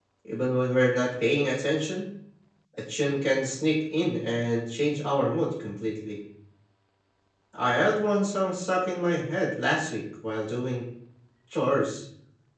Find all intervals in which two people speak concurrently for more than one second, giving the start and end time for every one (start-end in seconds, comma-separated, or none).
none